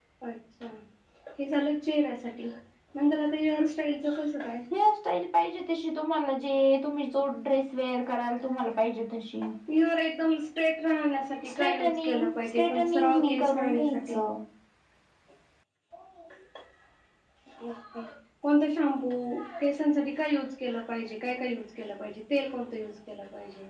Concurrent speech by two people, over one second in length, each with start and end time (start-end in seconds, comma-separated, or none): 11.5-14.2